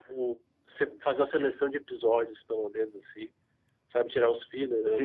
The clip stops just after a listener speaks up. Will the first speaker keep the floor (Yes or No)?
No